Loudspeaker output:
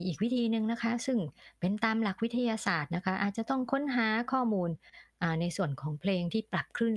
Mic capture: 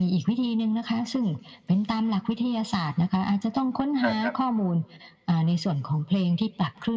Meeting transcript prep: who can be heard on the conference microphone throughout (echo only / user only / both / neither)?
both